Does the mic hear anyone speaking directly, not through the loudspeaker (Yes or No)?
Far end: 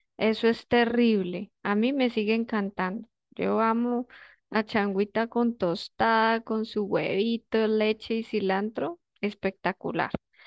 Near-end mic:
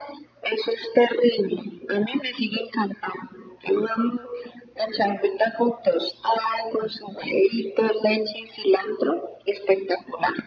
No